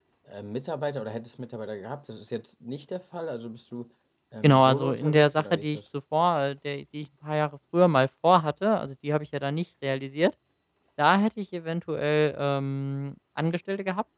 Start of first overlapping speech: 4 s

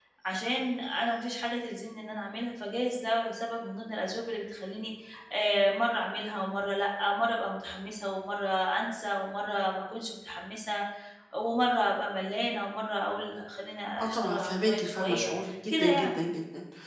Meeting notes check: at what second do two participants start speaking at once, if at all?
14 s

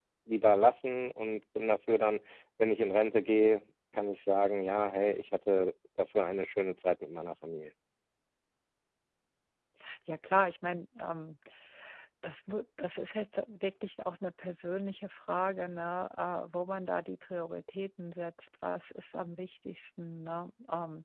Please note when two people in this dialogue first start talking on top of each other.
none

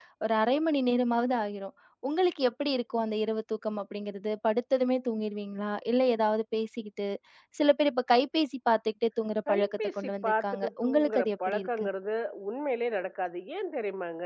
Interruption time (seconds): 9 s

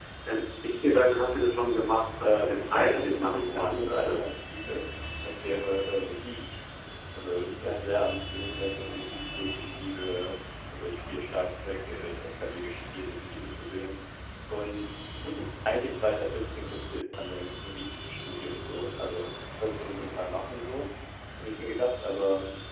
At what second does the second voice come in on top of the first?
2 s

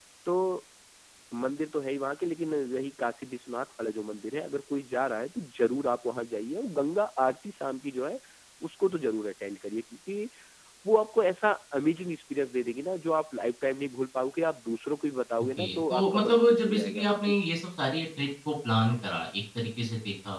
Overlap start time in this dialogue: 16 s

